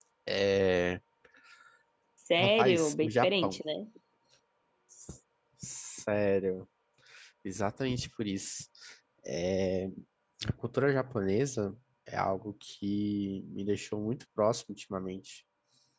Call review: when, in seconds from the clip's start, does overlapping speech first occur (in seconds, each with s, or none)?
2.4 s